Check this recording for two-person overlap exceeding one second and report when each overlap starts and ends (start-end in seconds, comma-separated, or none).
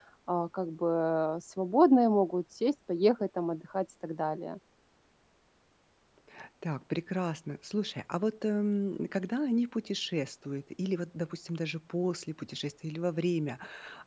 none